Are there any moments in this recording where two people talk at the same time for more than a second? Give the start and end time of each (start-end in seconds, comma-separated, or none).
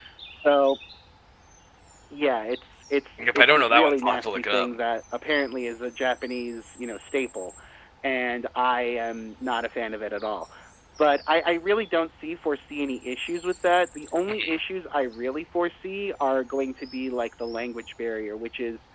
3.2-4.7